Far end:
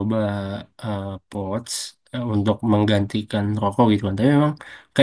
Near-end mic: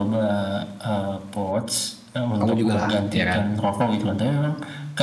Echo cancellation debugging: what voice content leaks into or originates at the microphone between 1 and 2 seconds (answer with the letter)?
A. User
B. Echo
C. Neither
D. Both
B